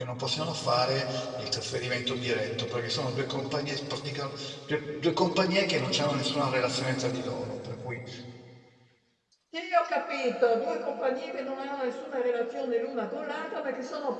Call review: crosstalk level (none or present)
none